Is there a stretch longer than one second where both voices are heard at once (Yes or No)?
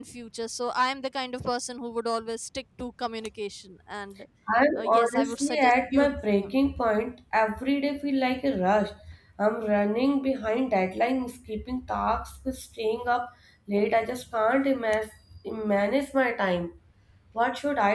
Yes